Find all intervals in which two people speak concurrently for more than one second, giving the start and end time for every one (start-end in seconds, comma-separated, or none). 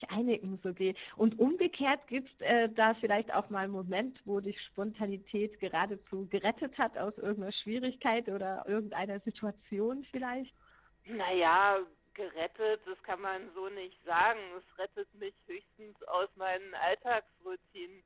none